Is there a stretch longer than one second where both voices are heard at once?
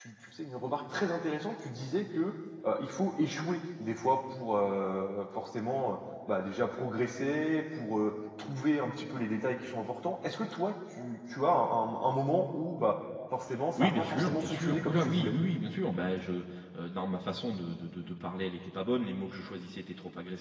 Yes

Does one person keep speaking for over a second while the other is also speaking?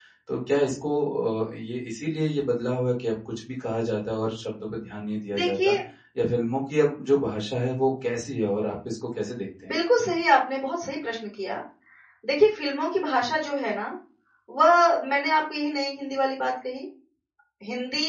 No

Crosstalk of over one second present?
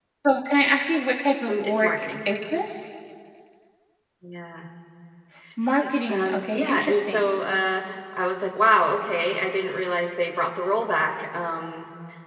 Yes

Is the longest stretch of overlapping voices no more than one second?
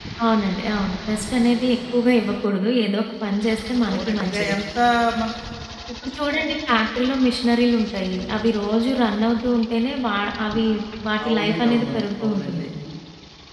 No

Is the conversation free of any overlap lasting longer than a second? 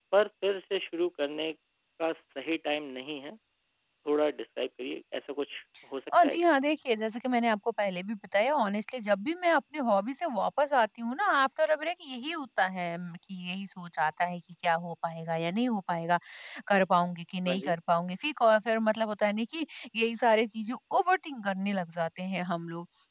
Yes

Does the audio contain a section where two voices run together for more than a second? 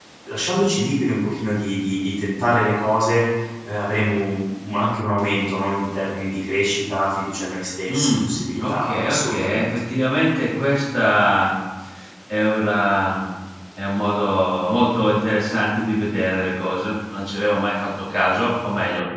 Yes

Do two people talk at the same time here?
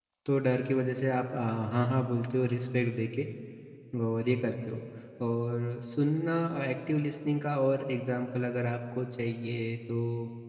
No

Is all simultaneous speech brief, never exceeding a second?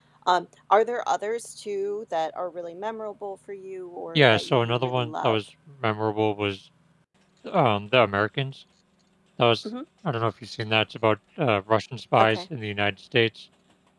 No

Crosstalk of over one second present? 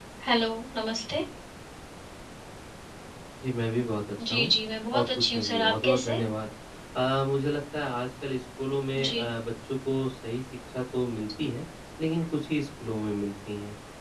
Yes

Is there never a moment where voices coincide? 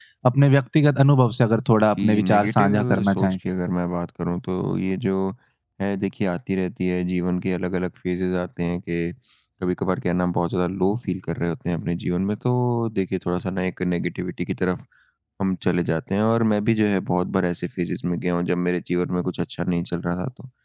No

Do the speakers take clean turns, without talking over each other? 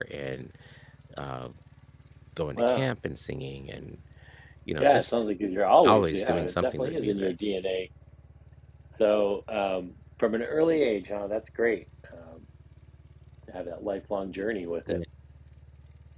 No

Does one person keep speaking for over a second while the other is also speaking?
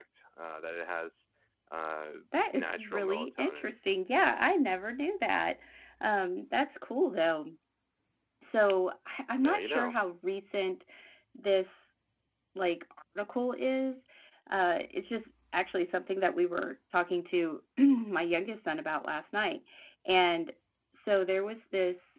Yes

